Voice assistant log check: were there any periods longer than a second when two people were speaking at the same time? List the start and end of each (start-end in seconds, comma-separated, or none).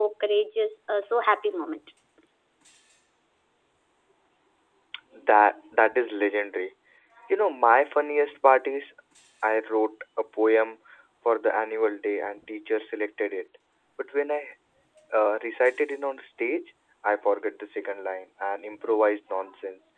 none